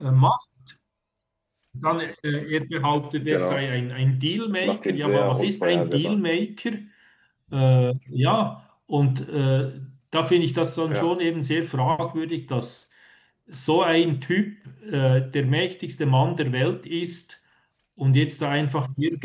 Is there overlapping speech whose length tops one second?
Yes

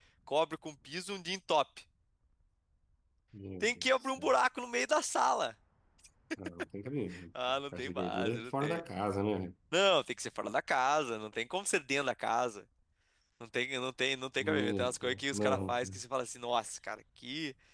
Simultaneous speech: Yes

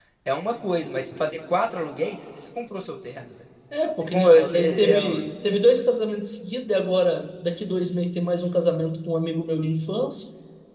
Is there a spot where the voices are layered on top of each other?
Yes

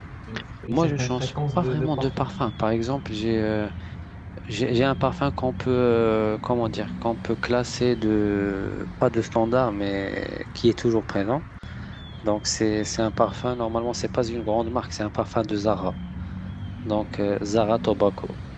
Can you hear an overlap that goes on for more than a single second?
Yes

